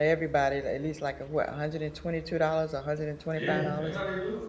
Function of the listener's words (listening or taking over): taking over